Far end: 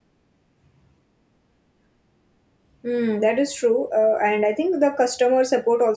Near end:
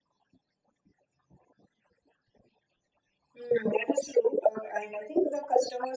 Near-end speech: none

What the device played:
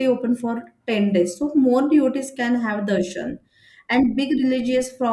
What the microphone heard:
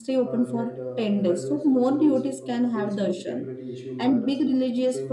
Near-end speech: present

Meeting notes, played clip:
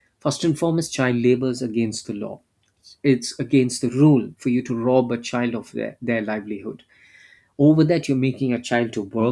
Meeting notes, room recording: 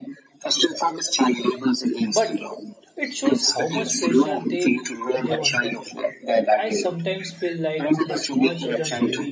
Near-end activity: present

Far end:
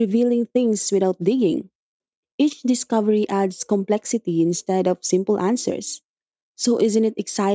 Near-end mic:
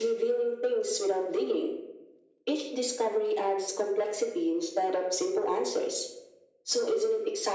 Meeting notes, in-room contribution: none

